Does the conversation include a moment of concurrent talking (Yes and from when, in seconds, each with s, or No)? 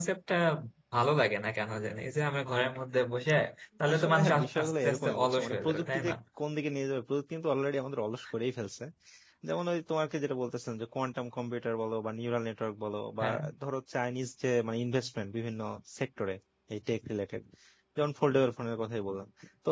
Yes, from 3.9 s